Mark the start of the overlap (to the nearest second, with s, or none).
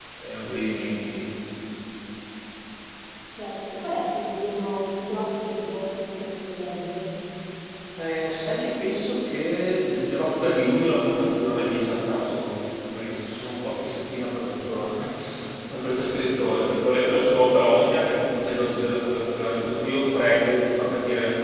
none